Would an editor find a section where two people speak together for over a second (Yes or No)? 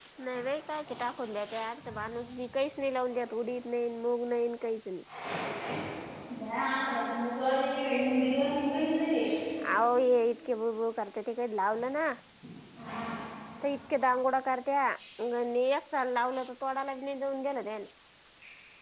No